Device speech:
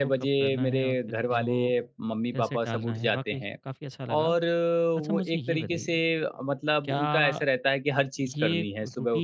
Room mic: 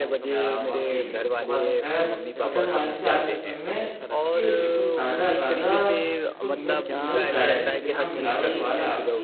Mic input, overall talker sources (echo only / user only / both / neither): both